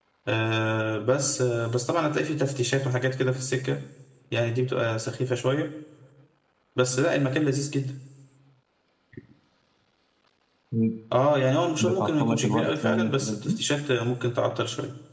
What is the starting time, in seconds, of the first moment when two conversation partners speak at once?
11.8 s

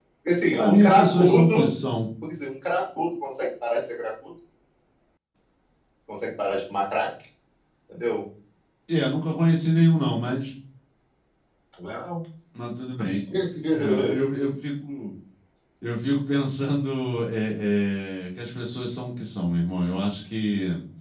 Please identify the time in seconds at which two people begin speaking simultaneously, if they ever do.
0.5 s

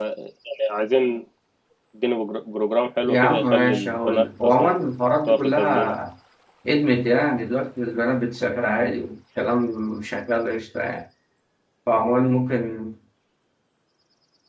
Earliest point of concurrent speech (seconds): 3.0 s

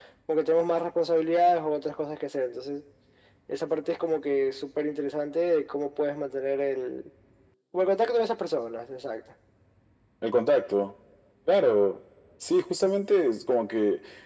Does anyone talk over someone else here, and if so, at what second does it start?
none

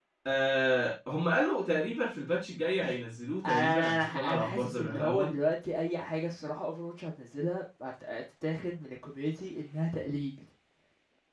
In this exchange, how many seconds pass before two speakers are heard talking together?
3.5 s

